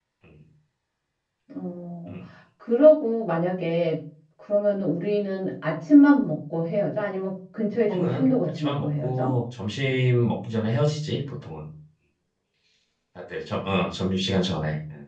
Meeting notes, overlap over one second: present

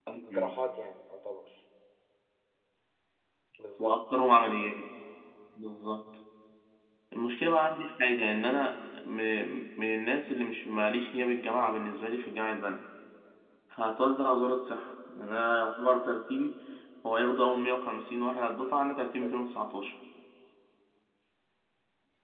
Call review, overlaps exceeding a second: none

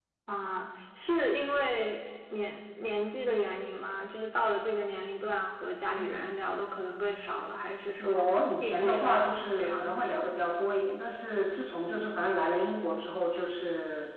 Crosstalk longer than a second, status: present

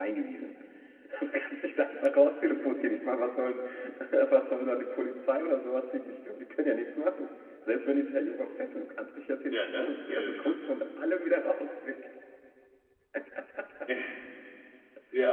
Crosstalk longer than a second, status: present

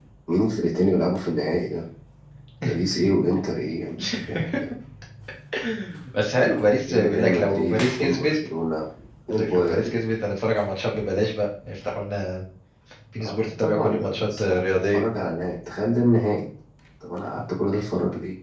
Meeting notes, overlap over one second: present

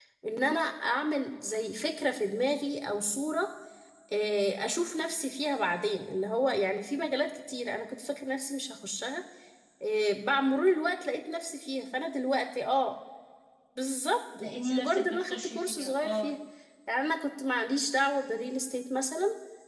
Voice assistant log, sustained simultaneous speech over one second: present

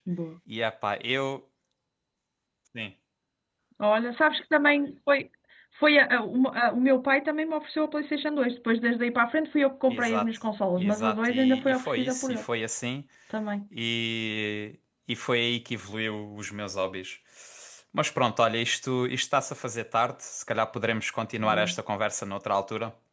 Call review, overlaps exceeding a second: present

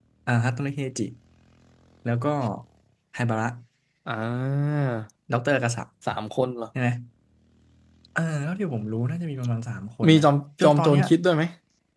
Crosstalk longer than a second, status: none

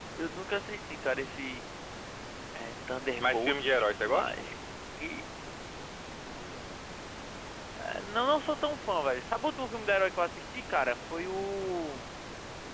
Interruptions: present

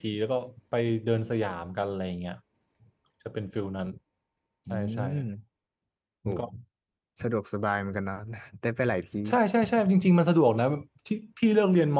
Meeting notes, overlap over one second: none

